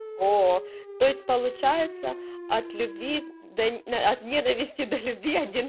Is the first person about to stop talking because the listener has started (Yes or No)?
Yes